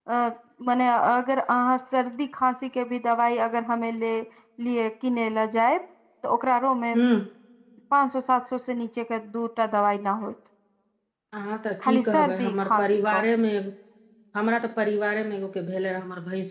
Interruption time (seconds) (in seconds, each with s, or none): 11.8 s